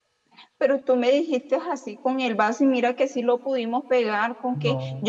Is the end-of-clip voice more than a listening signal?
No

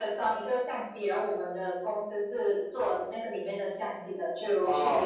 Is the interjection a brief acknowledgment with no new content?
Yes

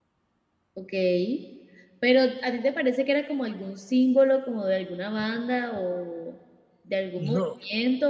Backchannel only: Yes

